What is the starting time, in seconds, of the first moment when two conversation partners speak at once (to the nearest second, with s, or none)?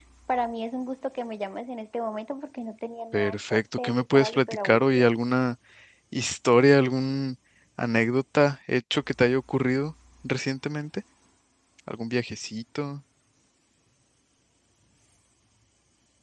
3 s